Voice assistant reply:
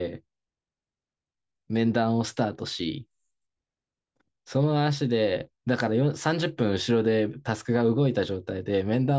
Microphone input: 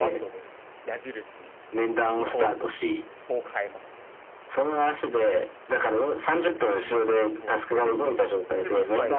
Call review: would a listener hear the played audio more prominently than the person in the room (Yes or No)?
Yes